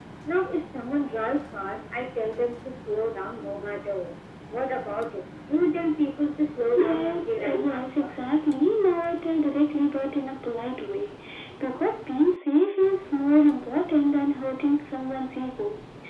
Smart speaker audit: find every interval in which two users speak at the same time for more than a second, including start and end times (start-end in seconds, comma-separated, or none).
6.8-8.1